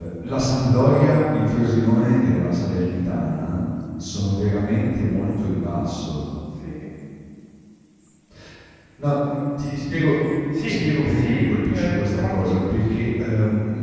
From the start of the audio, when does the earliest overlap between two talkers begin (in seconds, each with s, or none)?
10.5 s